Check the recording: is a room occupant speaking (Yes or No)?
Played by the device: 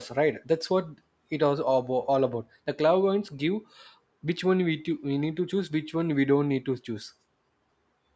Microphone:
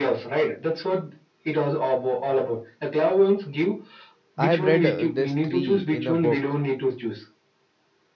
Yes